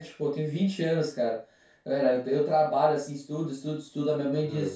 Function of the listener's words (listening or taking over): listening